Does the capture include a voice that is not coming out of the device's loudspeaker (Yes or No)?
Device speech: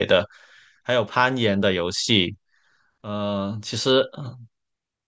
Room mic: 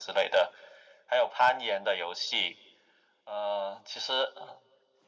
No